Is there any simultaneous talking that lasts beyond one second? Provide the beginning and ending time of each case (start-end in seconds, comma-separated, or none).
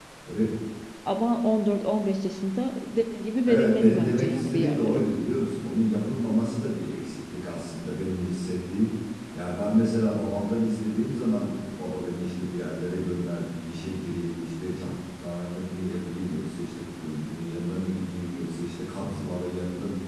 3.4-5.0